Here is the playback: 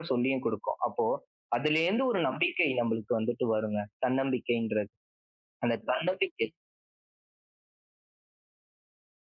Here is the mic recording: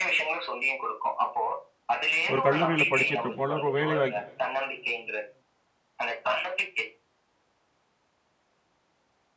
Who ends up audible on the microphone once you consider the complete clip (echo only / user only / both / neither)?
both